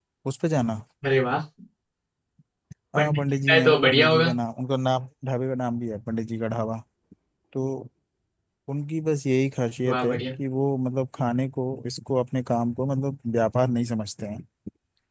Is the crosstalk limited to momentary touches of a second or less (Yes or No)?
No